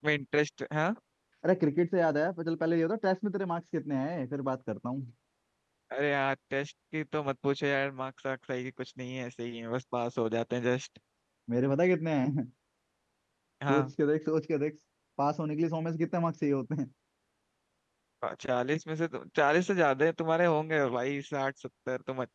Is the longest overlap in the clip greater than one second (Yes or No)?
No